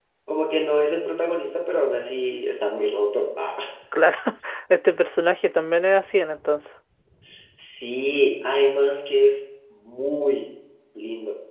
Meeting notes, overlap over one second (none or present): none